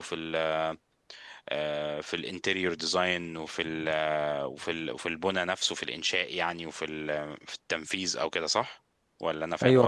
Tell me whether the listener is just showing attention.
No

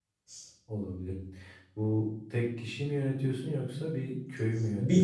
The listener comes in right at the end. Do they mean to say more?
Yes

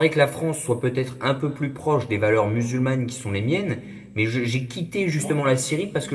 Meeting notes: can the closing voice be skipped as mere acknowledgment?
Yes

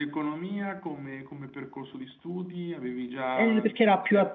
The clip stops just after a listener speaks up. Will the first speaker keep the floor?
No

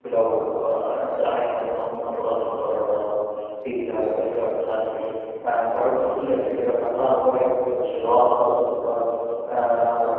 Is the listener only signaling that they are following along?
Yes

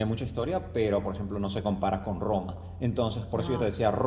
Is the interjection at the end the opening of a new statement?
No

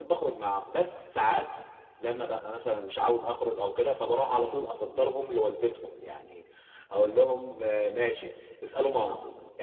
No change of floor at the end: Yes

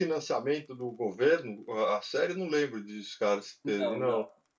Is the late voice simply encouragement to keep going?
No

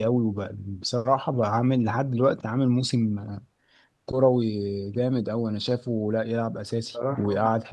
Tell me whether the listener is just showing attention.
Yes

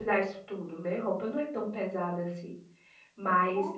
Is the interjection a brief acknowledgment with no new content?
Yes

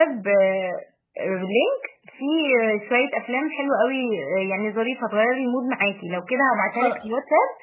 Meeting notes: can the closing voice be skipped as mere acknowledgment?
Yes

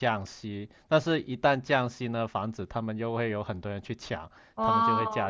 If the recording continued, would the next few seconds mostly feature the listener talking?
Yes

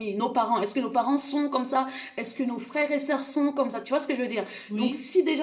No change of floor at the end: Yes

